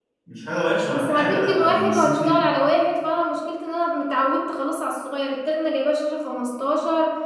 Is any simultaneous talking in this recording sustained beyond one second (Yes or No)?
Yes